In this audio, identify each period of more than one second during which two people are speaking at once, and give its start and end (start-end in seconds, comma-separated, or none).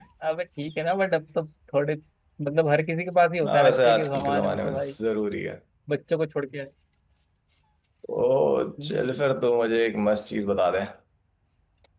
3.5-4.9